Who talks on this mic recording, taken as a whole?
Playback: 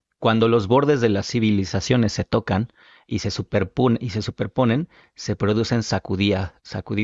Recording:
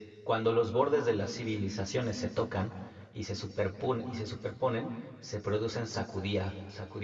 echo only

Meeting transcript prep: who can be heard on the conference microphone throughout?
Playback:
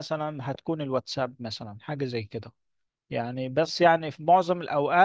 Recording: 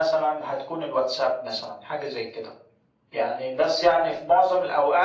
echo only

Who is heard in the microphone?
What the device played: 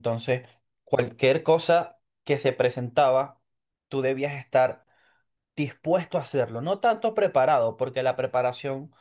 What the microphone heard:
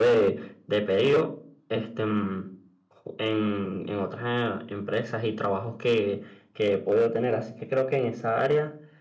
user only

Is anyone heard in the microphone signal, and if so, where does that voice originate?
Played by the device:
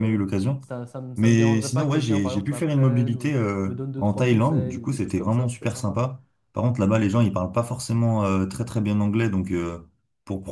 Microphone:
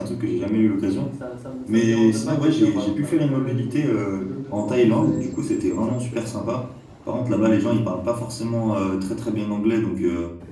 echo only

